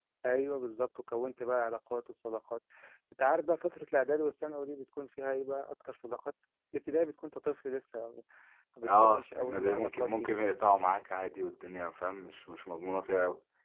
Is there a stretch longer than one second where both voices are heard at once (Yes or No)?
Yes